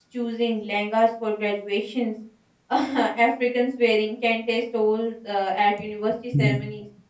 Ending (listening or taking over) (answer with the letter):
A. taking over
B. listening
B